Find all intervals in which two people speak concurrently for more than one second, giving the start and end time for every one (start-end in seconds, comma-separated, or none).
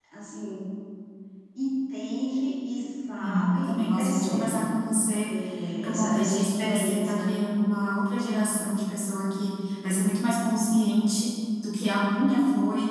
3.2-4.6, 5.8-7.3